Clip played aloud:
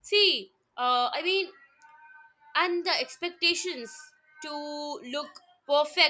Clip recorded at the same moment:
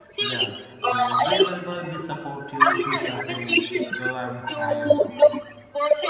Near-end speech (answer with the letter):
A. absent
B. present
B